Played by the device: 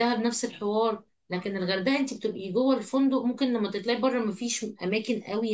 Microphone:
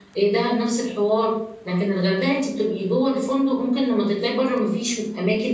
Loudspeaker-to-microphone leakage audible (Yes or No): Yes